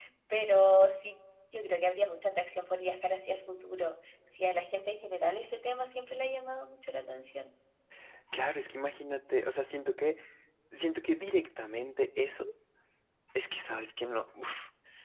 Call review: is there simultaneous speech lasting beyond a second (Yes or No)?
No